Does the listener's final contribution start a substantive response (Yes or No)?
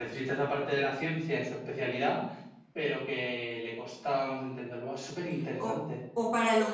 Yes